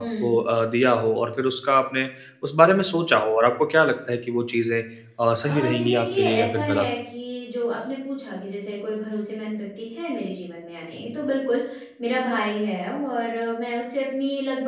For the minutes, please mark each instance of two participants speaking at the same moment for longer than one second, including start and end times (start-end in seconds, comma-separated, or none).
5.4-6.9